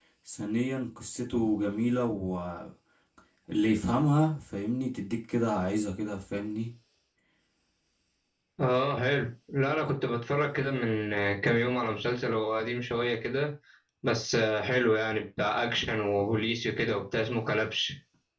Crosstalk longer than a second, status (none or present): none